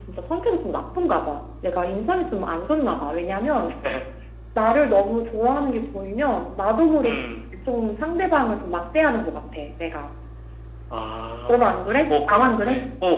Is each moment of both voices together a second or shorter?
No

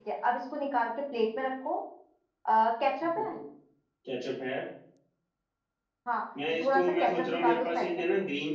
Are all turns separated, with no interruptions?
No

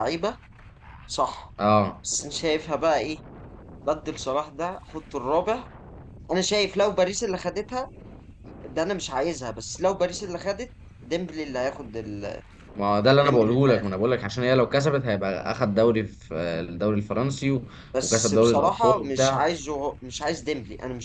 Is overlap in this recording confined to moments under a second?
No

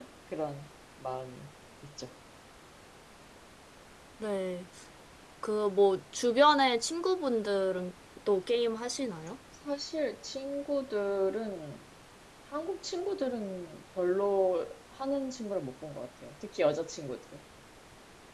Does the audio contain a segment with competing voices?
No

